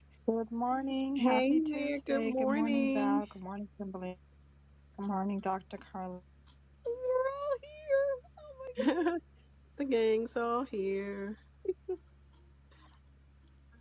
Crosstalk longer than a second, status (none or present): present